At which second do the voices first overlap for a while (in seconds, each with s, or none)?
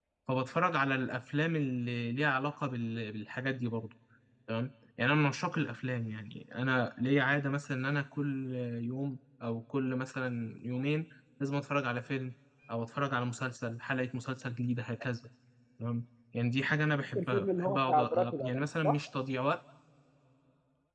17.2 s